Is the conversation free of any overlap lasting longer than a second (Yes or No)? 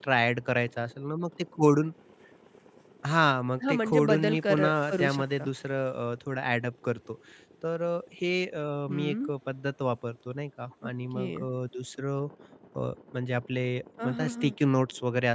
No